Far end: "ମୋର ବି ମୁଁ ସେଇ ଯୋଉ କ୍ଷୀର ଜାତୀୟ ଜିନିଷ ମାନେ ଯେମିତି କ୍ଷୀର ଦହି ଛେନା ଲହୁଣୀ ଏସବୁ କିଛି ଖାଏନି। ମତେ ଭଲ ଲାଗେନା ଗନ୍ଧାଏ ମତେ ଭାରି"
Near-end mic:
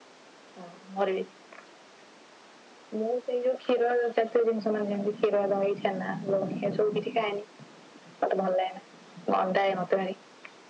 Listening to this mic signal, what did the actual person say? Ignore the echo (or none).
none